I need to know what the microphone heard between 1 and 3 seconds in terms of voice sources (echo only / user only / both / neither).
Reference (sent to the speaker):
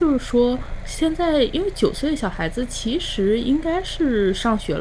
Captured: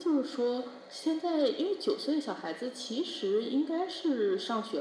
echo only